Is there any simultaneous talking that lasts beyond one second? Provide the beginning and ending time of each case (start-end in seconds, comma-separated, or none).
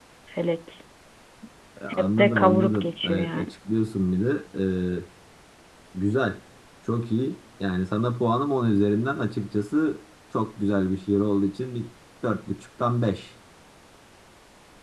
2.0-3.5